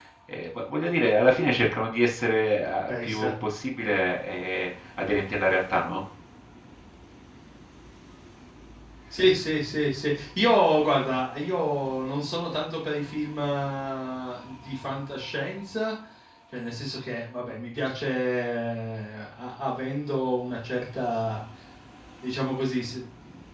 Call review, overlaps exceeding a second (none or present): none